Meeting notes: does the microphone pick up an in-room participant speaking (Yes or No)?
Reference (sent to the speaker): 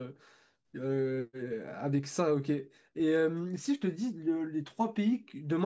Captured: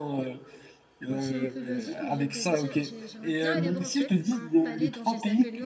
Yes